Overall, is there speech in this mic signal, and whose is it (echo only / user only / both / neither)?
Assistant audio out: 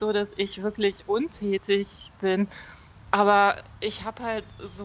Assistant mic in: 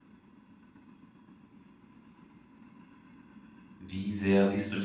user only